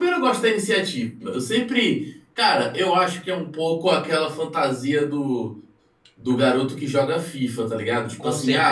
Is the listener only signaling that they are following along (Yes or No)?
Yes